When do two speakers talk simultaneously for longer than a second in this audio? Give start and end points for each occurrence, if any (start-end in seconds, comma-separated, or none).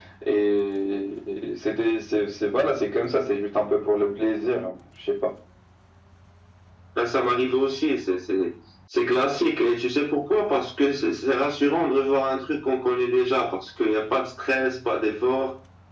none